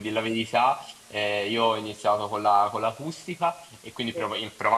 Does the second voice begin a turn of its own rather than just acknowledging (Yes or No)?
No